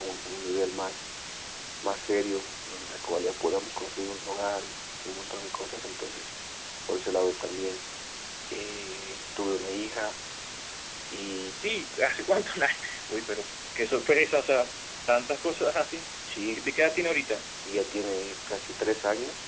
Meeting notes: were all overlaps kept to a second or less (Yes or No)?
Yes